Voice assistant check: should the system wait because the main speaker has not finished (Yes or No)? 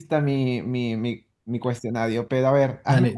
No